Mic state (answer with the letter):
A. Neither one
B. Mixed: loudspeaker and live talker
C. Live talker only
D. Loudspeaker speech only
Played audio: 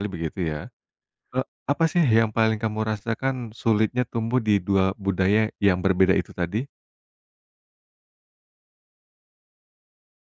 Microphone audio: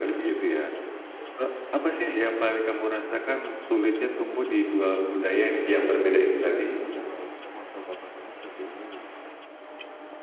B